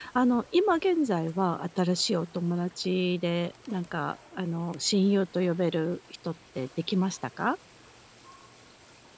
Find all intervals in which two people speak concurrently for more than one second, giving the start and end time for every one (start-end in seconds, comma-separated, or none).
none